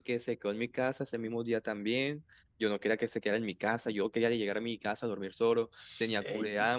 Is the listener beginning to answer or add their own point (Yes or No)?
Yes